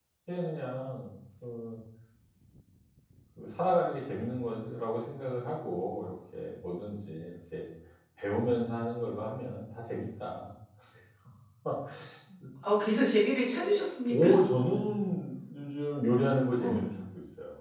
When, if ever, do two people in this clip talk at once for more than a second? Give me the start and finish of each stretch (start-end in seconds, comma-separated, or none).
none